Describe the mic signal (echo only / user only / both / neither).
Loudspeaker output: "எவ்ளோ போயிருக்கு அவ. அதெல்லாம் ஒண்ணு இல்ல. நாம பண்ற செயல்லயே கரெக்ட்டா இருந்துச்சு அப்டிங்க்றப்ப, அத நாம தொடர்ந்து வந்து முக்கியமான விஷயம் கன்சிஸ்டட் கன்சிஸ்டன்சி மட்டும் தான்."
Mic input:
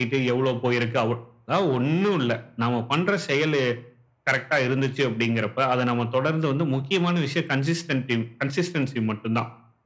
echo only